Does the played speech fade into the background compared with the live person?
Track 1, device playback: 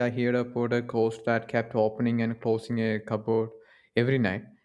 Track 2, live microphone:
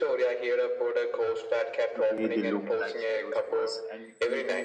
No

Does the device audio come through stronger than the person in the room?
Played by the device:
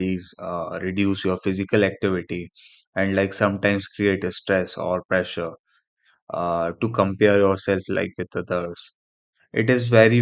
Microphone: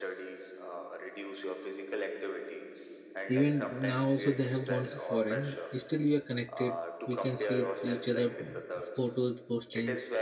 No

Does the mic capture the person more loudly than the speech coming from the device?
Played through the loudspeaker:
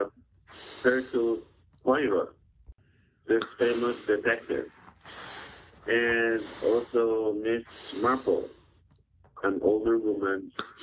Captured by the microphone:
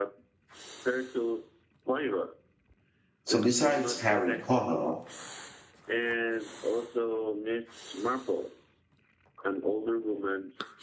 Yes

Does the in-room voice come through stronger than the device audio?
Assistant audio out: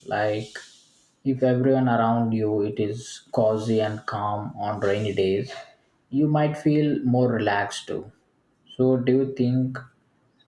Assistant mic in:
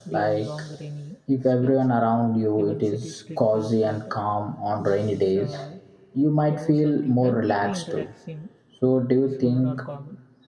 No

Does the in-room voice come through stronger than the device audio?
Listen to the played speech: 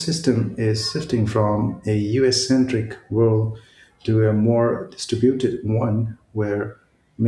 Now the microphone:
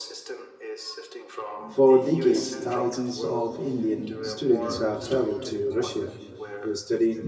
Yes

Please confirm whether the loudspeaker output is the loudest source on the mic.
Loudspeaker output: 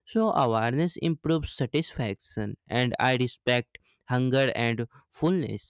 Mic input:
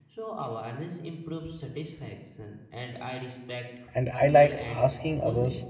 No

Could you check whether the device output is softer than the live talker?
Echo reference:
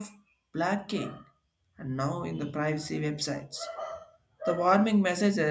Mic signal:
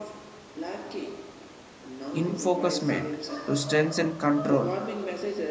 Yes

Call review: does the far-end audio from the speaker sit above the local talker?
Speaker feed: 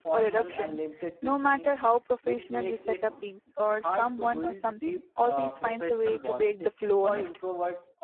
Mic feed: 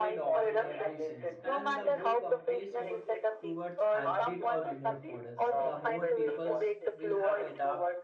Yes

